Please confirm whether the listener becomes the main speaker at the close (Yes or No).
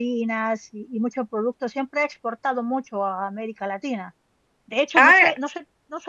No